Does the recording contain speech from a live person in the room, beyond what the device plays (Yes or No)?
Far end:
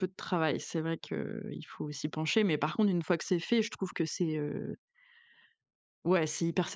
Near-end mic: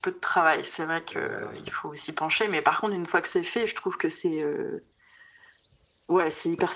Yes